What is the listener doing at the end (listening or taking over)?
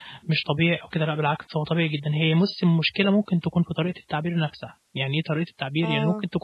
listening